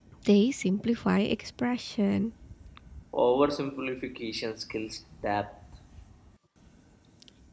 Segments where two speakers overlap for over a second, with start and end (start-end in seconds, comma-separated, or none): none